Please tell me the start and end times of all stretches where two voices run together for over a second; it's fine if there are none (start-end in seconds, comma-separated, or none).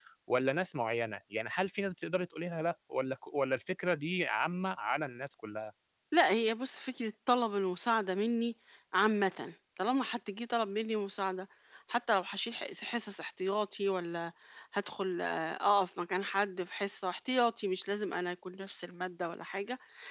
none